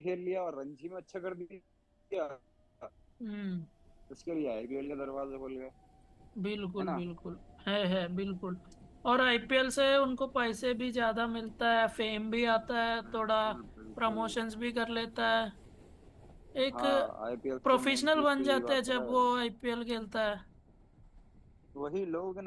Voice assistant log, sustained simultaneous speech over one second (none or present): present